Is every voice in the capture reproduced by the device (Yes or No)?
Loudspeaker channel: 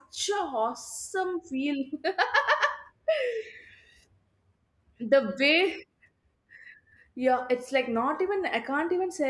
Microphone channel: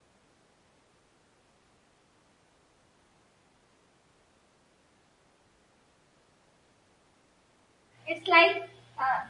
No